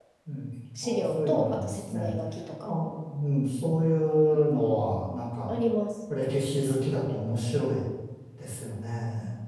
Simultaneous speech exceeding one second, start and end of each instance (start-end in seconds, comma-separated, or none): 0.8-2.1